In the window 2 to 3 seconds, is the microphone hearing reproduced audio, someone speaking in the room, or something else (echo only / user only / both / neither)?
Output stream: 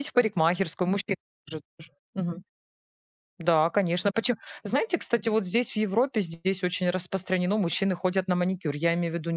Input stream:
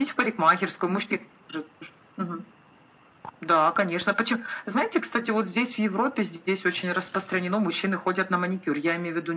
echo only